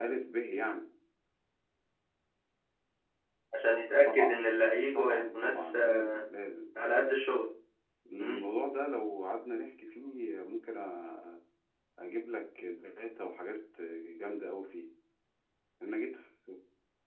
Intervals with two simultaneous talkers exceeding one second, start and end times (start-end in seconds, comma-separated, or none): 4.9-6.2